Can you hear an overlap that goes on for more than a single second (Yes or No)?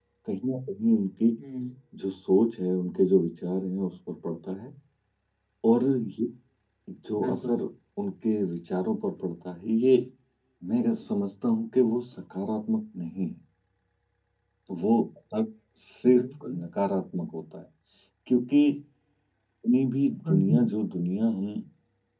No